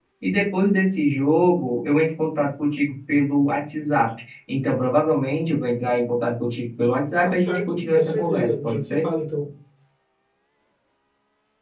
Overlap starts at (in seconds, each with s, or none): 7.2 s